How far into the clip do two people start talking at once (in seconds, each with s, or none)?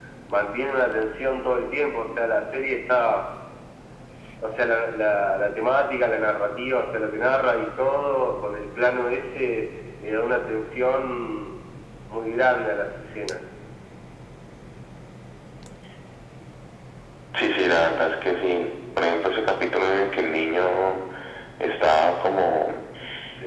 none